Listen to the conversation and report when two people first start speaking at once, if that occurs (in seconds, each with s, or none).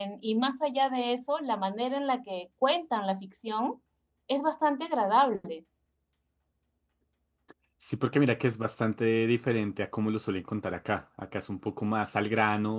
none